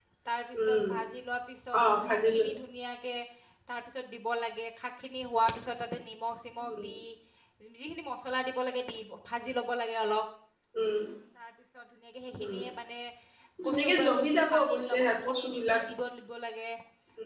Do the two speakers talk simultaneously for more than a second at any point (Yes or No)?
Yes